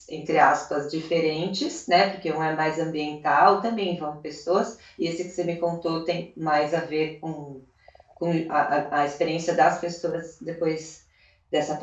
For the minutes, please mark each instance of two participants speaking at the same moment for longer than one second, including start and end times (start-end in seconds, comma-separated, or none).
none